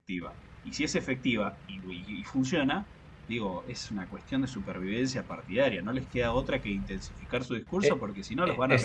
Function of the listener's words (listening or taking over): taking over